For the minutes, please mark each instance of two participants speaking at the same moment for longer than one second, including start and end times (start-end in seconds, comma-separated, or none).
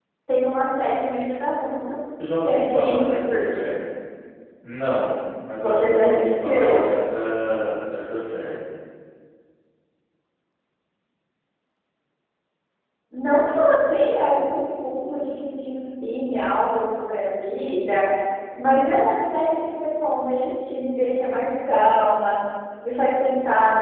2.4-3.7, 5.6-6.9